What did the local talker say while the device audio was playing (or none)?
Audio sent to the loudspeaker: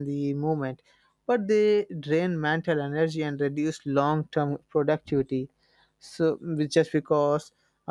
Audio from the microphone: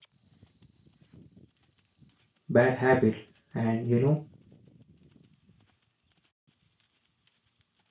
bad habit and you know